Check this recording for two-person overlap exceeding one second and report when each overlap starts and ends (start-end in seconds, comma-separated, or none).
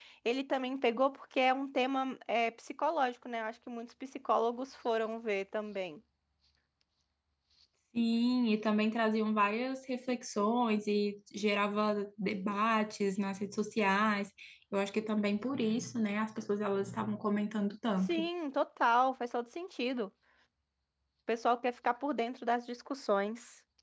none